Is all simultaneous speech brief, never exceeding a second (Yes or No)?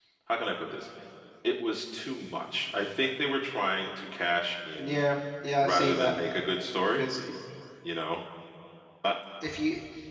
Yes